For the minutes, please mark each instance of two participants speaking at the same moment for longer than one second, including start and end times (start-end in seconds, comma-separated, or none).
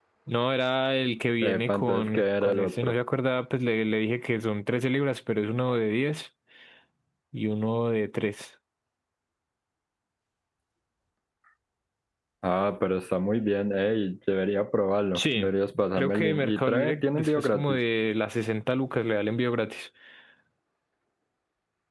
1.4-2.9, 15.9-17.8